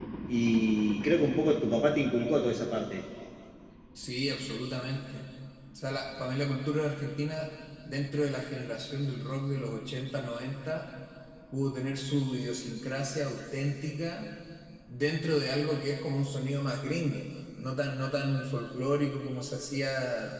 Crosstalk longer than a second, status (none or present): none